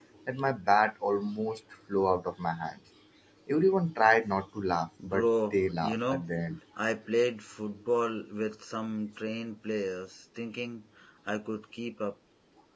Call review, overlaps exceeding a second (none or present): present